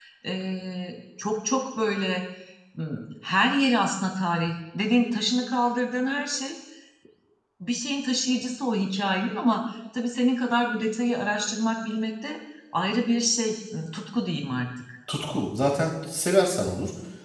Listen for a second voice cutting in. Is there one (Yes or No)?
No